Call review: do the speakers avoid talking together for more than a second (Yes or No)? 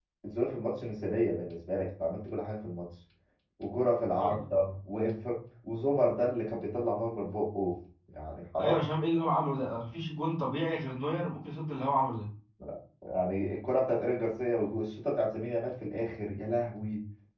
Yes